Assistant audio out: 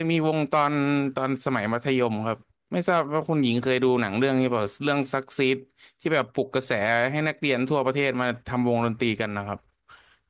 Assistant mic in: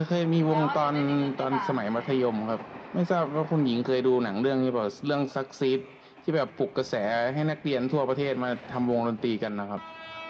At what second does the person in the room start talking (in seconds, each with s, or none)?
0.4 s